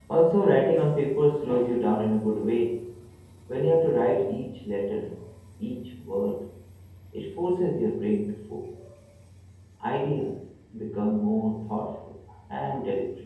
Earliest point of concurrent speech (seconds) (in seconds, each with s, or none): none